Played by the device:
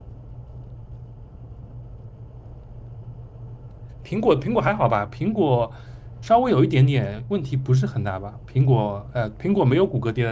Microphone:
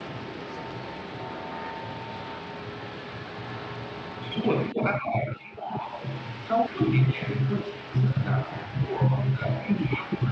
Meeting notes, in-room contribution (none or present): none